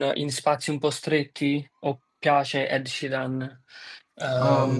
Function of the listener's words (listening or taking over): taking over